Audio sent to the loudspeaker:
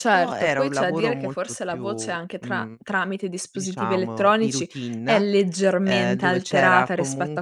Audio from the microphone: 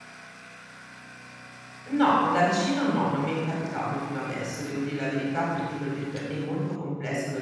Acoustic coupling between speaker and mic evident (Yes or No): No